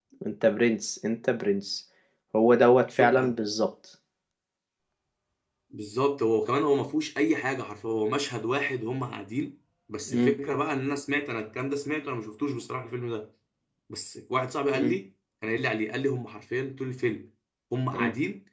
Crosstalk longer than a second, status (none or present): none